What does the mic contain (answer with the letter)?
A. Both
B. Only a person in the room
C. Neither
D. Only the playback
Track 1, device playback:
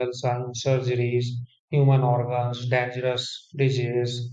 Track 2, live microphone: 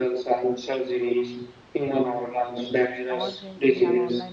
A